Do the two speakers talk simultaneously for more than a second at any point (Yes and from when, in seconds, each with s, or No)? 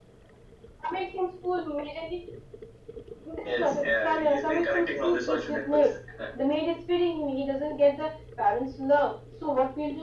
Yes, from 3.4 s